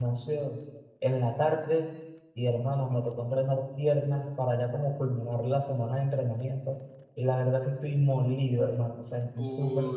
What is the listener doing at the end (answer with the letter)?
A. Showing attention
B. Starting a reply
B